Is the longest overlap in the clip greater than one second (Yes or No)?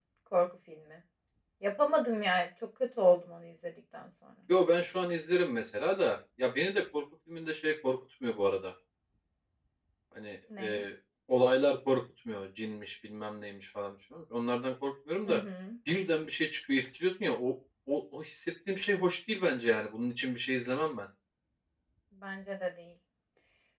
No